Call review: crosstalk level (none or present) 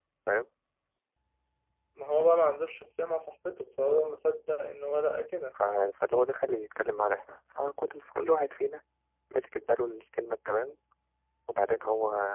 none